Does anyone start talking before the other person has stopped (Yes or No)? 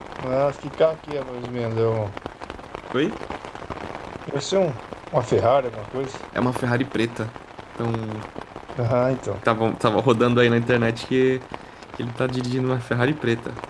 No